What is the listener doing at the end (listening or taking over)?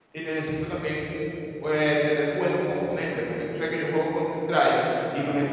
listening